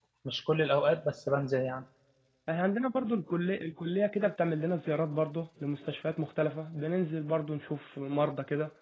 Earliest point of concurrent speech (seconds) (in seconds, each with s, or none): none